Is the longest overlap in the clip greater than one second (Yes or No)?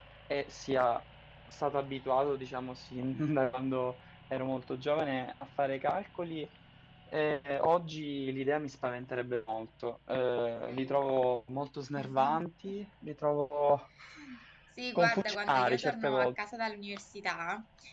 Yes